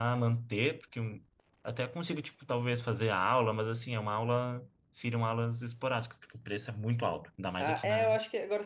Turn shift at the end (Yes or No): Yes